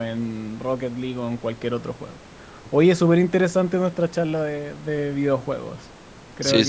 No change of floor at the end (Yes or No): No